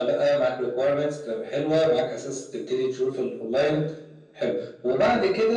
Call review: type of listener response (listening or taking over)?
listening